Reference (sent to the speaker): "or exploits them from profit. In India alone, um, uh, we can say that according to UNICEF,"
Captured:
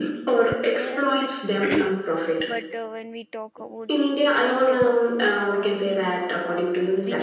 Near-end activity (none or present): present